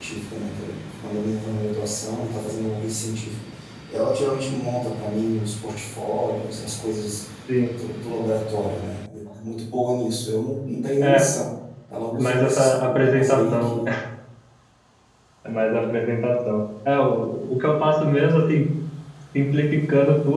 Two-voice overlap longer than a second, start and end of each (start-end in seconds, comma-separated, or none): 12.2-13.8